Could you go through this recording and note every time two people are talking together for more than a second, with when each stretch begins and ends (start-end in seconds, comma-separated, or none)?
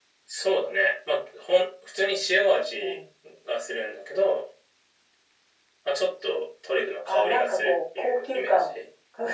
7.1-8.6